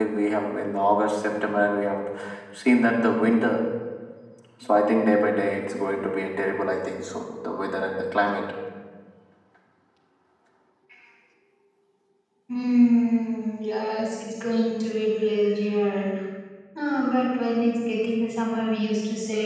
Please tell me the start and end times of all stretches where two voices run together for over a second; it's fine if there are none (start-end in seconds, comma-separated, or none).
none